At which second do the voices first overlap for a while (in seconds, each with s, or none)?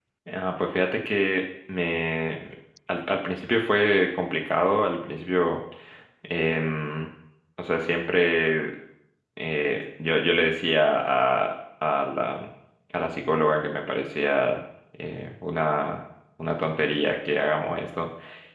none